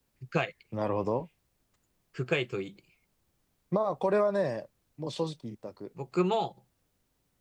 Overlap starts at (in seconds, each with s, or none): none